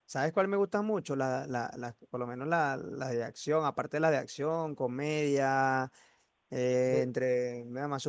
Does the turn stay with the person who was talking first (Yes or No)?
Yes